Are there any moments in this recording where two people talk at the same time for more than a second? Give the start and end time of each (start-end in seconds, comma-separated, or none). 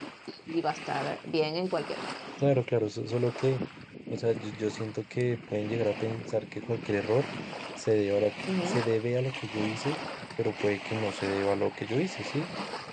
none